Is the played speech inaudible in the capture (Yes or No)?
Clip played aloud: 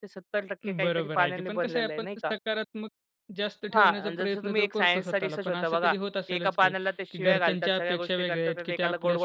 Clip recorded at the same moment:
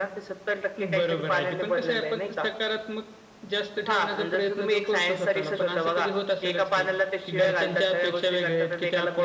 No